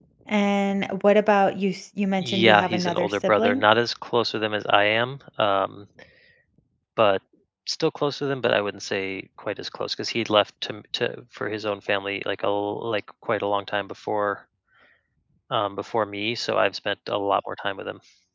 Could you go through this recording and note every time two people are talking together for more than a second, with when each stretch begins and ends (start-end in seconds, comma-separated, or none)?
2.2-3.6